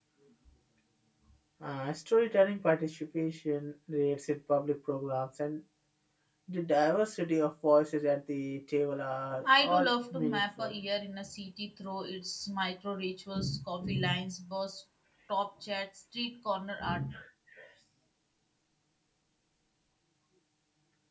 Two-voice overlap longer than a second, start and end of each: 9.4-10.7

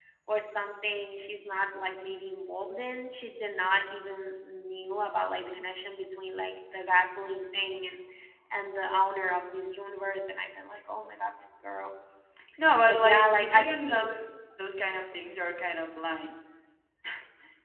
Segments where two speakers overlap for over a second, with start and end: 12.8-14.1

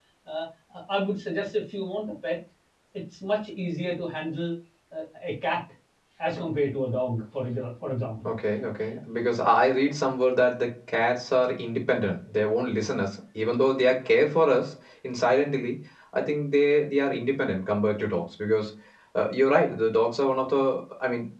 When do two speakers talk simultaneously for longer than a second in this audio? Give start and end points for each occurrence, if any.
none

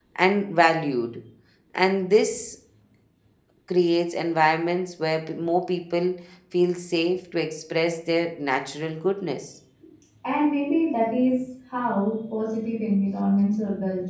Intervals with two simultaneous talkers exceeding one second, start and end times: none

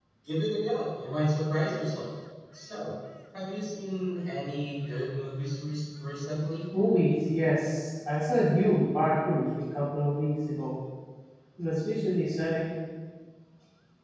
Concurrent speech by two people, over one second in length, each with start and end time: none

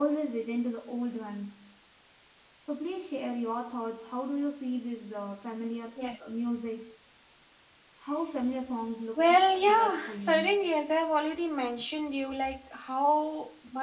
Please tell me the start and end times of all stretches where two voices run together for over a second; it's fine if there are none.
9.2-10.6

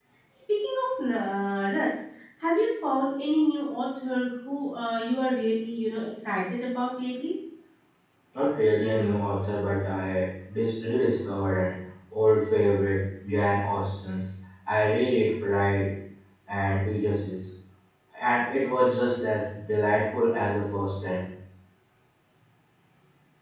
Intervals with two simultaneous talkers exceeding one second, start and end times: none

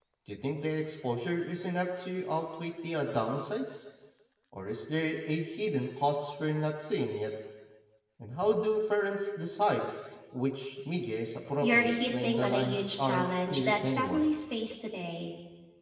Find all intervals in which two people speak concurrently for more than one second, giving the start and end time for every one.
11.6-14.2

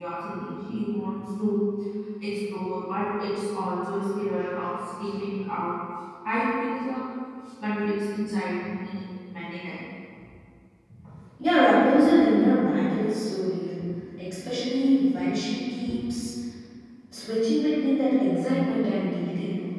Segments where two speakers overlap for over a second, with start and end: none

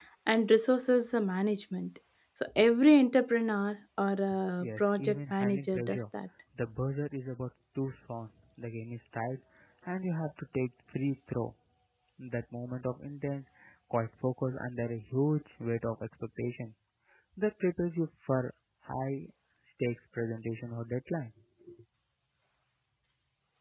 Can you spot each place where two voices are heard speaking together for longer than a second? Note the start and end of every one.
4.6-6.0

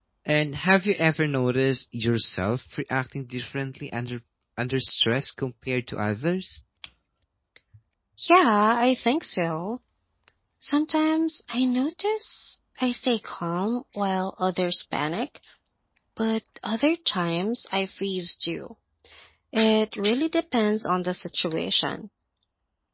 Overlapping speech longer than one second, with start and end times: none

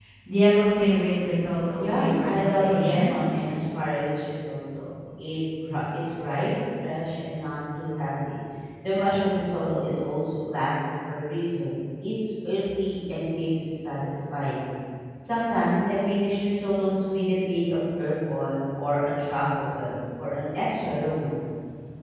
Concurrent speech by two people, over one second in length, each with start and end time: 1.8-3.1

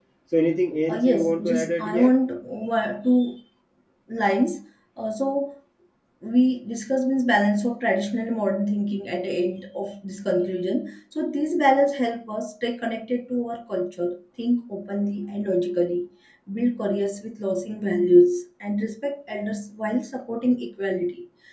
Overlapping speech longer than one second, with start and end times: 0.9-2.1

